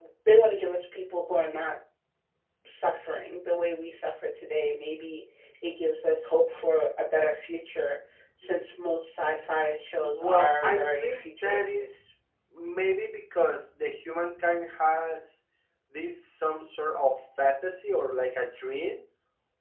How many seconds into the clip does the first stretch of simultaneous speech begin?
10.0 s

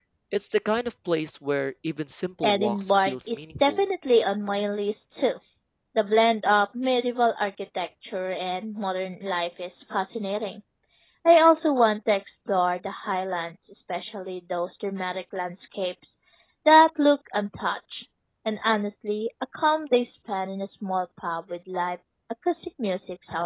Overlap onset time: 2.4 s

